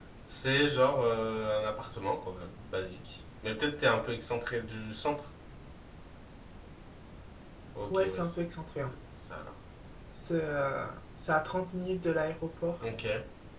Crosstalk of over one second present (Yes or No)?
No